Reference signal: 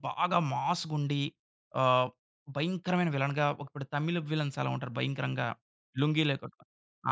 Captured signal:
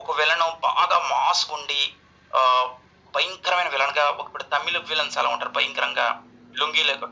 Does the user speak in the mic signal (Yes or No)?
No